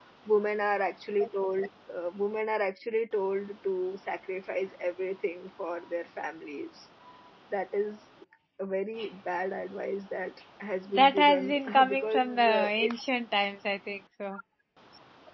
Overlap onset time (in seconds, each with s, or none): 10.9 s